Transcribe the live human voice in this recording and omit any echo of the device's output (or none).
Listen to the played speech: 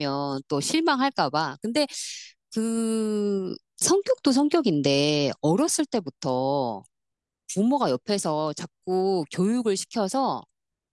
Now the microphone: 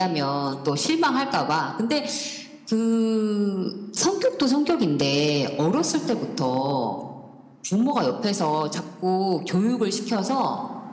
none